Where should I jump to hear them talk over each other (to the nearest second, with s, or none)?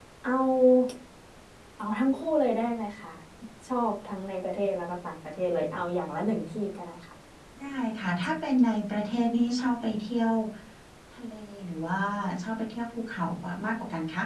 none